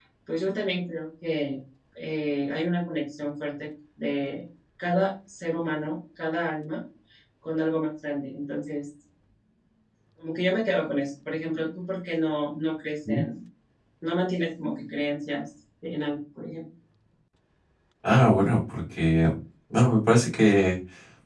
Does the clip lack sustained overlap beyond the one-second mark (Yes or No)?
Yes